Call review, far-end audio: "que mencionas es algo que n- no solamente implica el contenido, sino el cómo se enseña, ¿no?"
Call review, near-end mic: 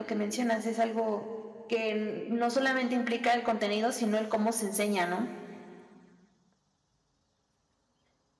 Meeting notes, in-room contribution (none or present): none